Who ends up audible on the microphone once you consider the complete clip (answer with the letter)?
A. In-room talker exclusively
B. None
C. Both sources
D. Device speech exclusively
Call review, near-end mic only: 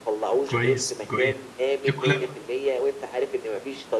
C